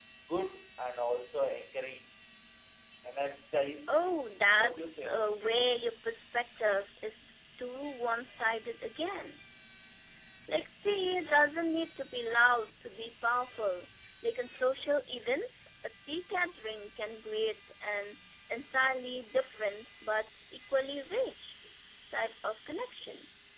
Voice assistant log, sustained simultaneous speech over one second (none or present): present